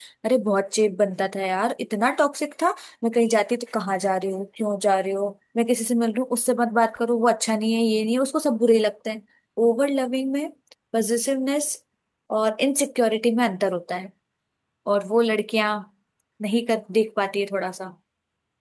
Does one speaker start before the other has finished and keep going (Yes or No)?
No